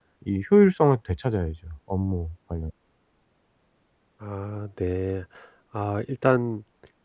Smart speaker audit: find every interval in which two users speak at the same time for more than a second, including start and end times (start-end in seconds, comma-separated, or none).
none